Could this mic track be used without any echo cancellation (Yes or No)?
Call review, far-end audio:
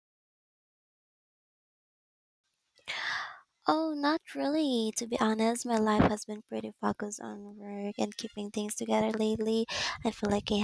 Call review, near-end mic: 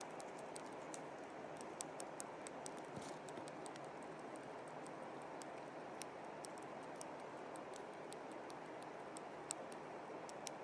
Yes